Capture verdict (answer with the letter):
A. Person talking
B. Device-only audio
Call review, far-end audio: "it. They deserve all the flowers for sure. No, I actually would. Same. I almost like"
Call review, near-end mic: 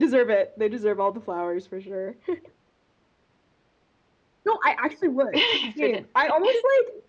A